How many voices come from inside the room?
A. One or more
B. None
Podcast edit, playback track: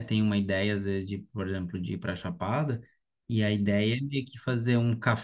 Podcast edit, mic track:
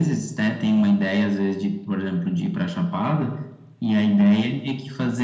B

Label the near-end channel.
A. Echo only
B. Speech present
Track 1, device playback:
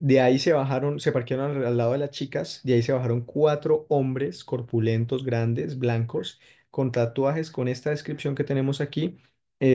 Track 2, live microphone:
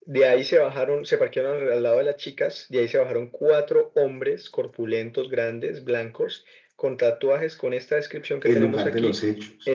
B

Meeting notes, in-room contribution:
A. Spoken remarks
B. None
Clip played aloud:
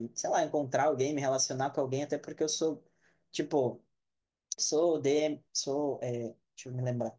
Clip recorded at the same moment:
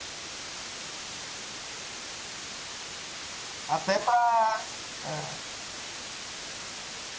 A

